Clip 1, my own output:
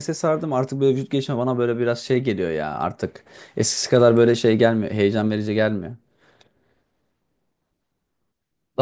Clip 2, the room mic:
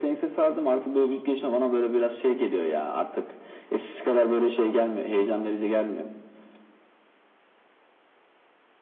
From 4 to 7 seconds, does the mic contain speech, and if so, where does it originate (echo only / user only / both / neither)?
echo only